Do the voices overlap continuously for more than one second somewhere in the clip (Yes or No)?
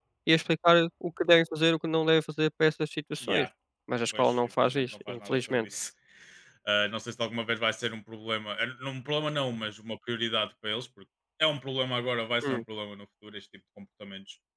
Yes